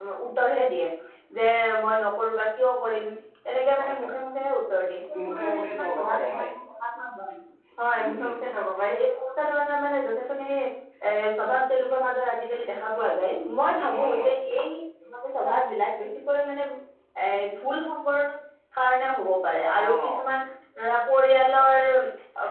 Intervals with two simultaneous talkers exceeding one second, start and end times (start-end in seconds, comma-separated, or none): 5.2-6.5